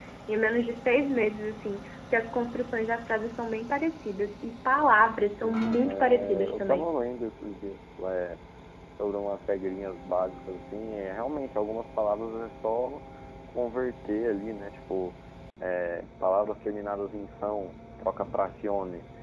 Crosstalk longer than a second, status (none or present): present